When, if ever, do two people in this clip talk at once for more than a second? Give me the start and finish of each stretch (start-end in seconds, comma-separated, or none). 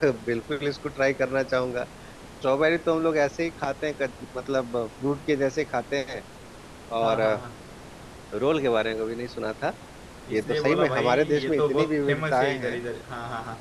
10.3-12.8